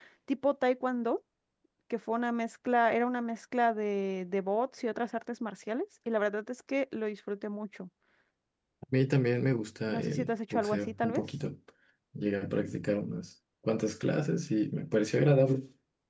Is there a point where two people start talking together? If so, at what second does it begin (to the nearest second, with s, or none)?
10 s